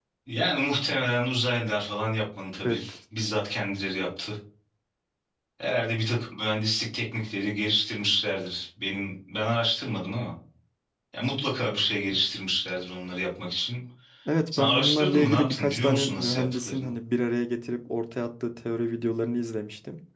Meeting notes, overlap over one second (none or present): present